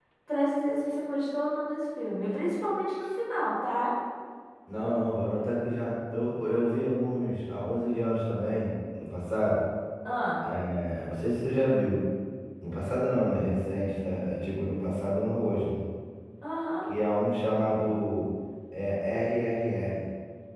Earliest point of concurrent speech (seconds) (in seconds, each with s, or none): none